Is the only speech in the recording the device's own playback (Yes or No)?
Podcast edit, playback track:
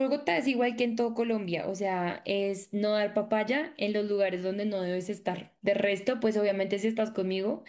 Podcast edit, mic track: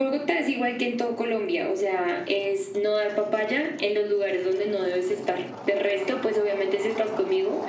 Yes